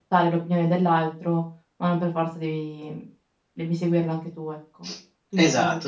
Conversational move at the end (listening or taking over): taking over